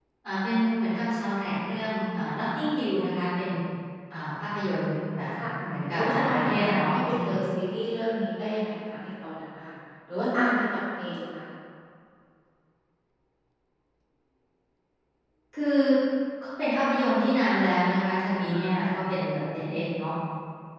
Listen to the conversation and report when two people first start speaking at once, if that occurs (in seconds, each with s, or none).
5.9 s